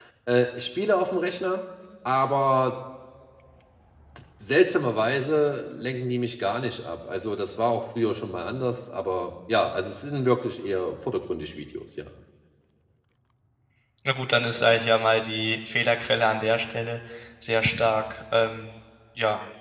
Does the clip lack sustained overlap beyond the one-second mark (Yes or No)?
Yes